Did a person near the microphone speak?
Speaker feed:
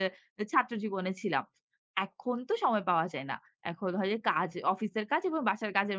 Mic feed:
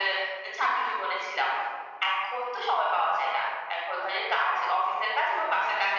No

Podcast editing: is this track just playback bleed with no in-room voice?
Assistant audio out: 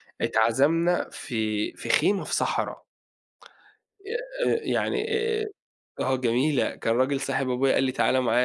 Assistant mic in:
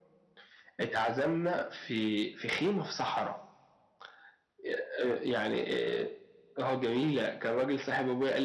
Yes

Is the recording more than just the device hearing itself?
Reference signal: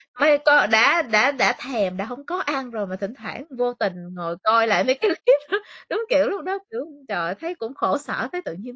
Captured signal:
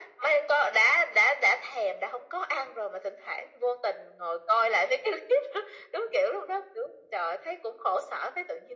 No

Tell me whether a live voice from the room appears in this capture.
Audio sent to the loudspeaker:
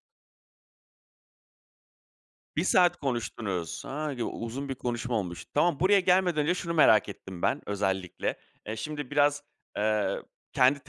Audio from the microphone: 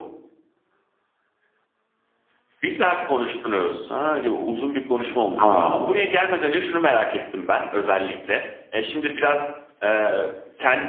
Yes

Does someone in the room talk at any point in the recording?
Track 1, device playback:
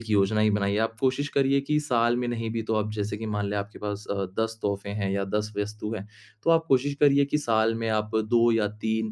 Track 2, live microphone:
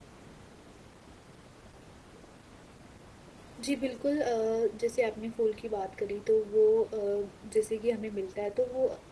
Yes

